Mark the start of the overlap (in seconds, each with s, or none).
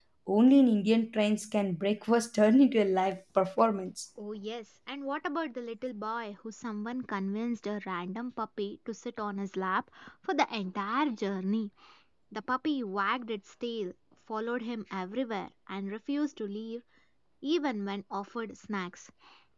none